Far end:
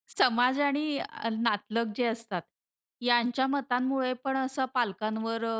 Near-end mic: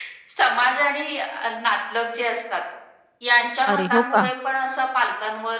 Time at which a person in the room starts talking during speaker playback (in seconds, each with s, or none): 3.7 s